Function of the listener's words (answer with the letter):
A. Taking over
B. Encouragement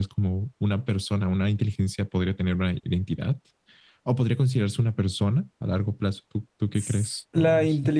A